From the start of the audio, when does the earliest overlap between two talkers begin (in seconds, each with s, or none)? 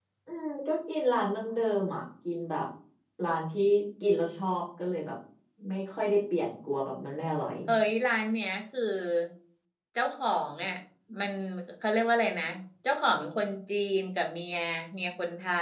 none